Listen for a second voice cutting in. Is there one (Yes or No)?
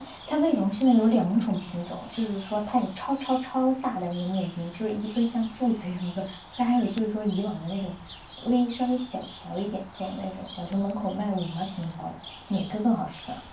No